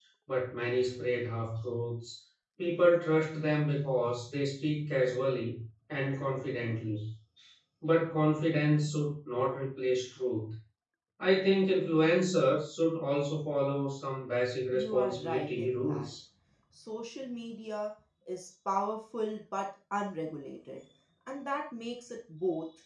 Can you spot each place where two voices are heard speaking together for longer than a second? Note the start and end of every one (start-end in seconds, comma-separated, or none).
14.7-16.1